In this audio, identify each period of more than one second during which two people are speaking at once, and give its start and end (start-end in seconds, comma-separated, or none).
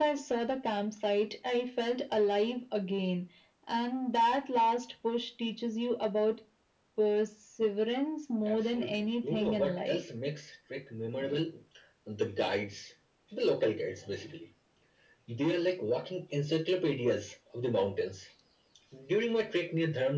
8.5-10.0